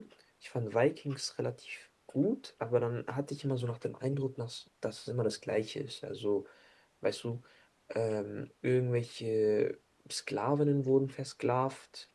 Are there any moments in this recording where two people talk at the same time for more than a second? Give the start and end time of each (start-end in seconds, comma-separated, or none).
none